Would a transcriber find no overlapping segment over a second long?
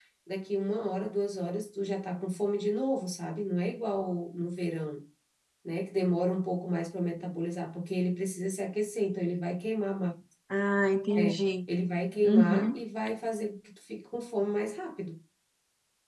Yes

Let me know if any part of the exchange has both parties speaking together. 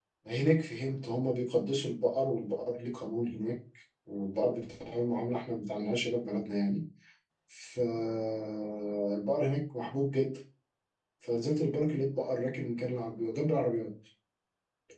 No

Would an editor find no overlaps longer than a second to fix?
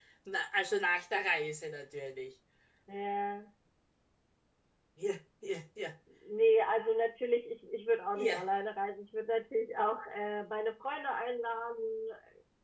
Yes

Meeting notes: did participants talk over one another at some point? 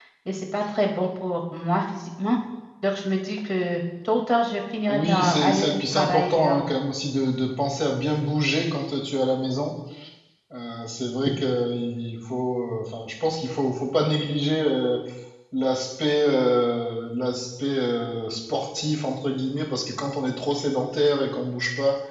Yes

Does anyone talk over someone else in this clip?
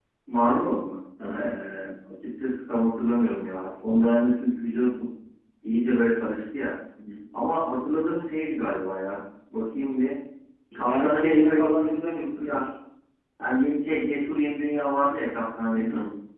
Yes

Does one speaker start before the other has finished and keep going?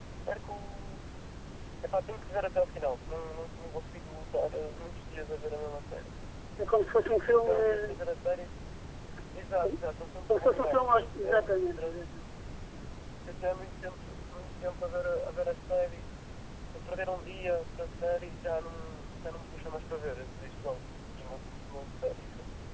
Yes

